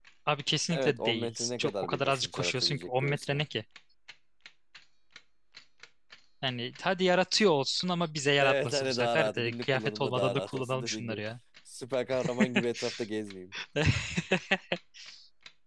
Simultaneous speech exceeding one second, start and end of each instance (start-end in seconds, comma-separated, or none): 0.7-3.4, 8.4-11.2